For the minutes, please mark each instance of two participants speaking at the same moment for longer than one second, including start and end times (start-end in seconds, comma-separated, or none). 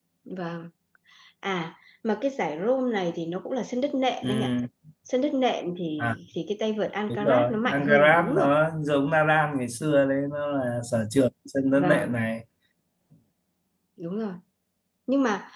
7.1-8.5